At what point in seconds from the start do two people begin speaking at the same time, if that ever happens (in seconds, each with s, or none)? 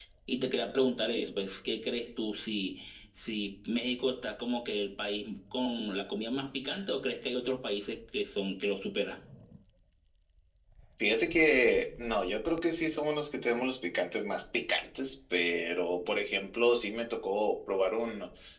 none